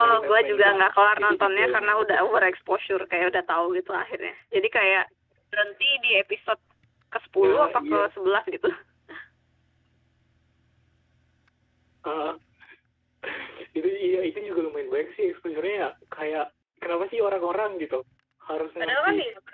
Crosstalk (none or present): present